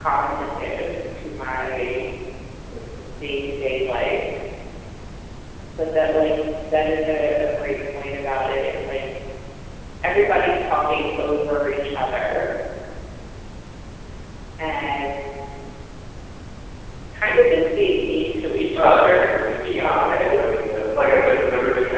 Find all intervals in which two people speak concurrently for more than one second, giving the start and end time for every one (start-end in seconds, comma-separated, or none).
18.7-20.5